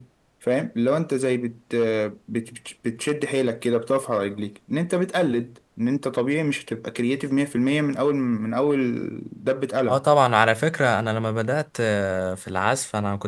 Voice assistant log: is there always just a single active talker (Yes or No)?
Yes